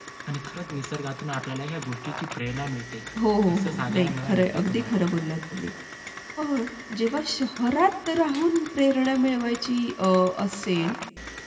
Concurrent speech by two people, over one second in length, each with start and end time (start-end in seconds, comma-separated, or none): 3.5-5.2